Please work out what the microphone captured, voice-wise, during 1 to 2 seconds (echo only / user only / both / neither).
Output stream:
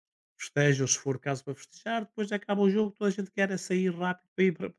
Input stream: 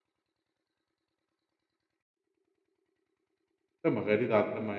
neither